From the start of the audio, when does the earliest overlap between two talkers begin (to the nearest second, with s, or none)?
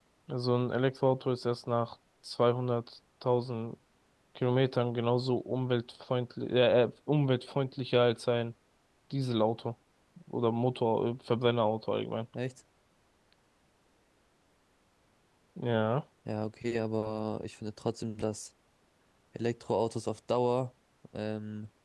none